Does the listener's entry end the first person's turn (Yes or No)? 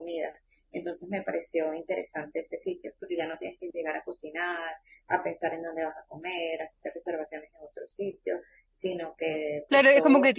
Yes